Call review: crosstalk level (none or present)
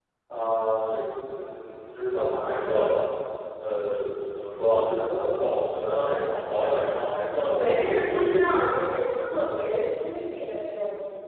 present